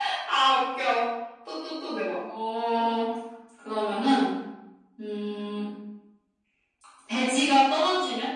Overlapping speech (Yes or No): No